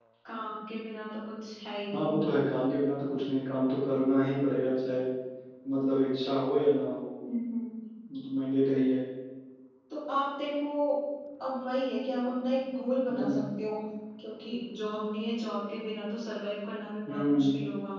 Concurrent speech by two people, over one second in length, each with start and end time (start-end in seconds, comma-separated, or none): none